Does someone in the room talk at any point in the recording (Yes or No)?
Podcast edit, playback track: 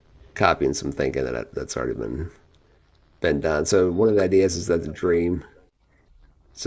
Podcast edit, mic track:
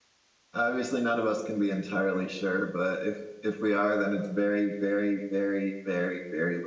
Yes